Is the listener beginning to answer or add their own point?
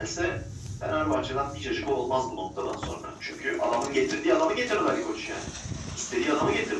Yes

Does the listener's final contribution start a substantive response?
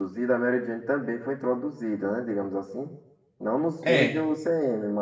No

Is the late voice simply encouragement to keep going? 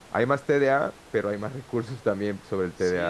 No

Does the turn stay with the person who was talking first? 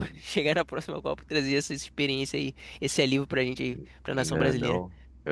No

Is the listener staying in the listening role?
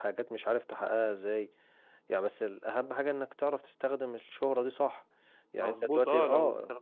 No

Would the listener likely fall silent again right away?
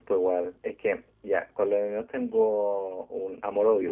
Yes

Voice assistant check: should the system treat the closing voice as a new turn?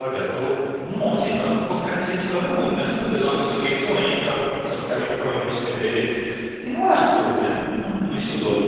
No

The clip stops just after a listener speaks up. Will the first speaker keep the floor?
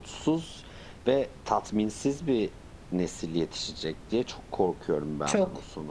No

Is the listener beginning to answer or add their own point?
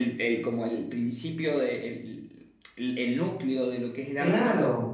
Yes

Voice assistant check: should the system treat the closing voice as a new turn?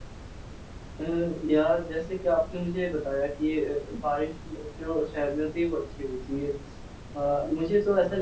No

